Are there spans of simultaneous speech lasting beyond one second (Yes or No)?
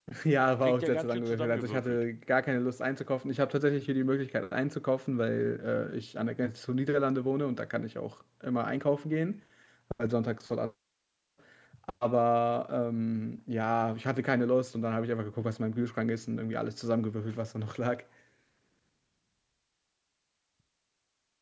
Yes